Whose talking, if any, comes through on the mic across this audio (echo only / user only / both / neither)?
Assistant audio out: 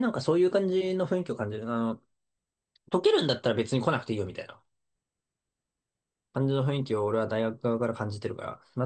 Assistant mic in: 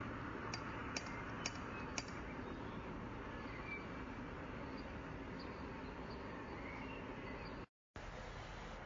neither